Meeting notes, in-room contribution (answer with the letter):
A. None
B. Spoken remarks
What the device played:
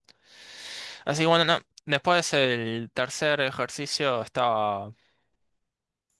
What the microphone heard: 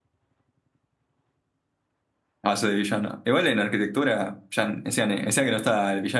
B